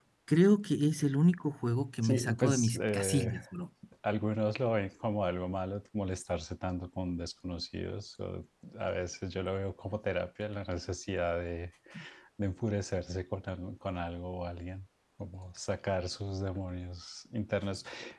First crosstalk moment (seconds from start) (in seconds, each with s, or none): 2.0 s